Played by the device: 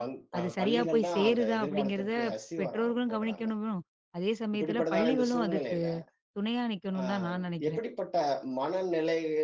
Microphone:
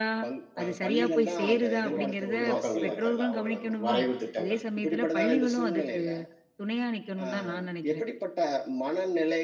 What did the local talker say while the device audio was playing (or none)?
ஒ ஒ நோக்கங்கள் இருக்கிறதா? ஒரு வரைவு திட்டங்கள்?